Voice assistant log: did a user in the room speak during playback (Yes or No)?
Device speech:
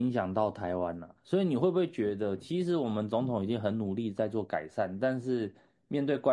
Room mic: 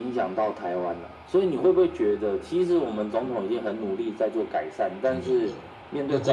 Yes